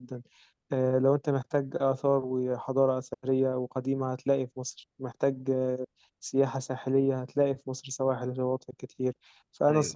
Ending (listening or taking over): listening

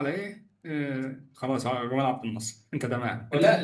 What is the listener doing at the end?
taking over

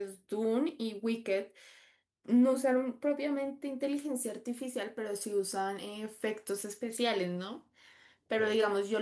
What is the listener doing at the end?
listening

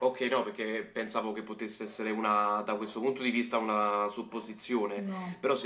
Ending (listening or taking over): listening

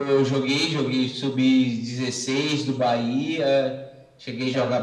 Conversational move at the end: listening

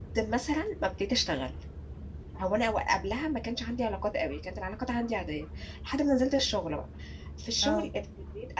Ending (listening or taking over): listening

